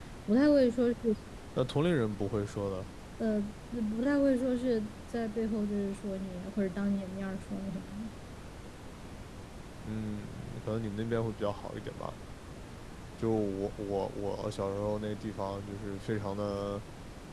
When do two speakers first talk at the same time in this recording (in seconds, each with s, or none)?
none